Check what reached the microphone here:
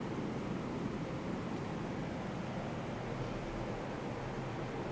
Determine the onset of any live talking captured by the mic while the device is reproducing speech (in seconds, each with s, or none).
none